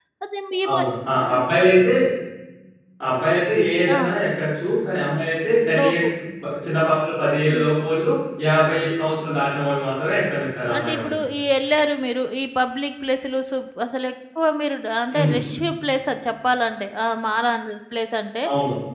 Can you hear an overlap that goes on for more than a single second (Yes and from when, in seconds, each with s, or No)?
No